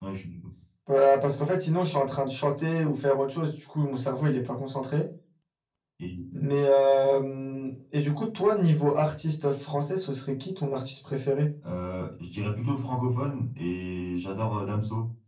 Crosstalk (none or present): none